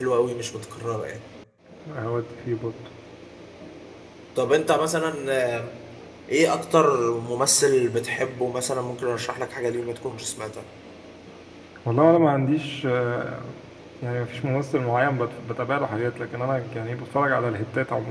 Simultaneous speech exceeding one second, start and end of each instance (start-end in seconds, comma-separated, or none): none